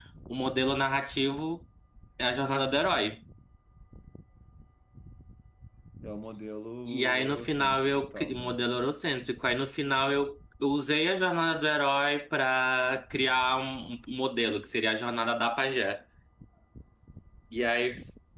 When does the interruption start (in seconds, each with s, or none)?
6.9 s